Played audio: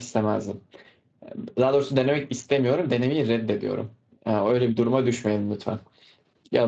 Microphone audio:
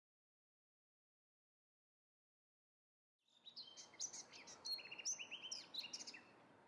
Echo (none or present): none